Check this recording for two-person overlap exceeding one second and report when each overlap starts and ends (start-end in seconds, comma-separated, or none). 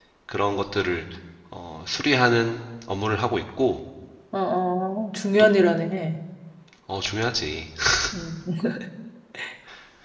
none